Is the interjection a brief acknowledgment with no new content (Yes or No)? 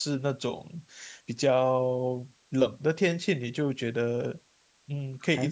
No